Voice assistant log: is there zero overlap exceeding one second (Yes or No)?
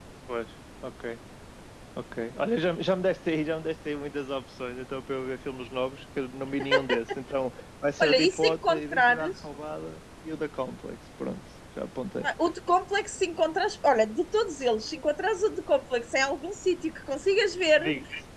No